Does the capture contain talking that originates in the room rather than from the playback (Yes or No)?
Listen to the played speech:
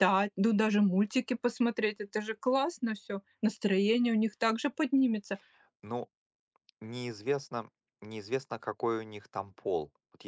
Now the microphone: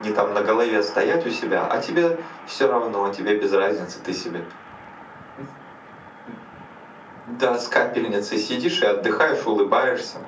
Yes